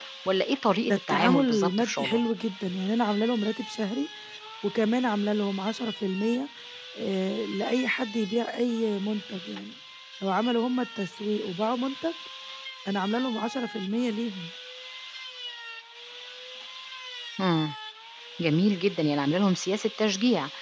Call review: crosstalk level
present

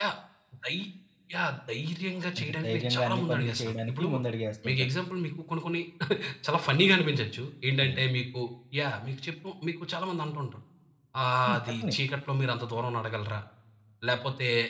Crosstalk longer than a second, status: present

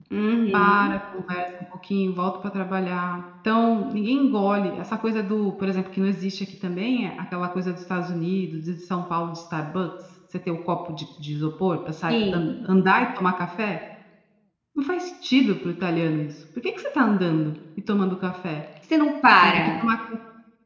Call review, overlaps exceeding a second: none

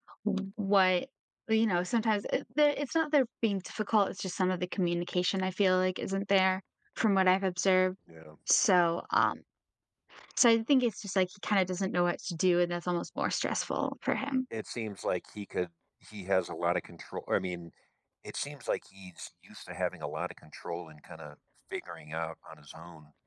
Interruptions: none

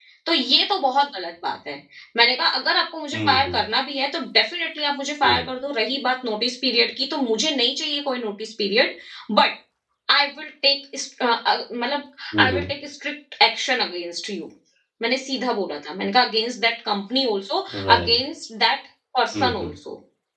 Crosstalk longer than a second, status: none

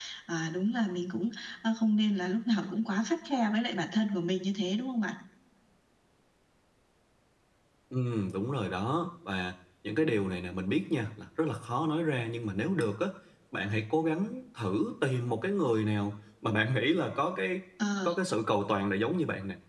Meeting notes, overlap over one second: none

